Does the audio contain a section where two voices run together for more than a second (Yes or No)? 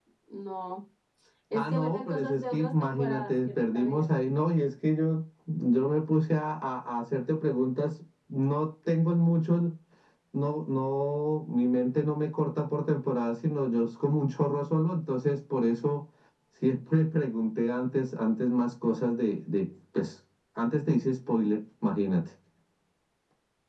Yes